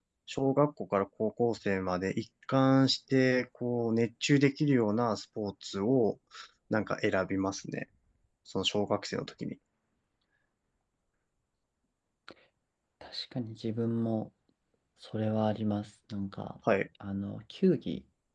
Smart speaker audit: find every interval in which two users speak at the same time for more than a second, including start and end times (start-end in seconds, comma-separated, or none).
none